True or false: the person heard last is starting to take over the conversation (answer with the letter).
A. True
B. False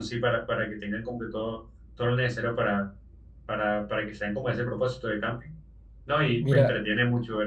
B